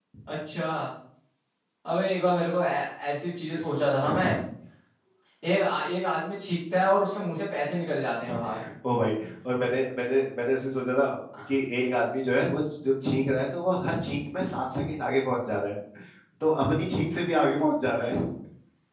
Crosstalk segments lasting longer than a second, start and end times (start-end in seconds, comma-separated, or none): none